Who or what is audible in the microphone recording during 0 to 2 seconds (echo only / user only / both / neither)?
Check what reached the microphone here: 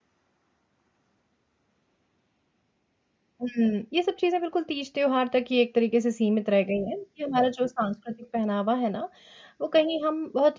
neither